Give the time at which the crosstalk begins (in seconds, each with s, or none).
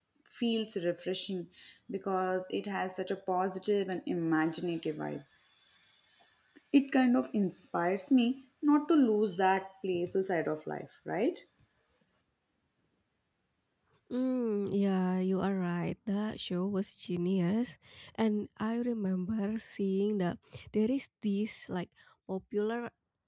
none